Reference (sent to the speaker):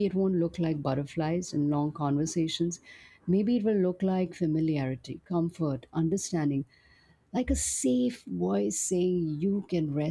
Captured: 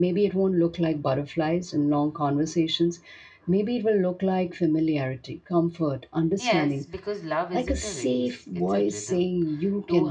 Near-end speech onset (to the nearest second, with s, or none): 6 s